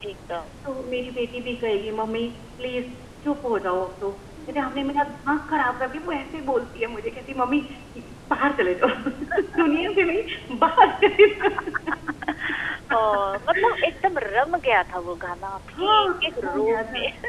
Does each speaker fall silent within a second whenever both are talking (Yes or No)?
No